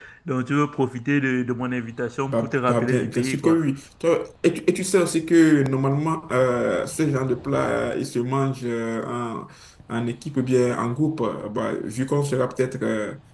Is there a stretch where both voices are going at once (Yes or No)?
Yes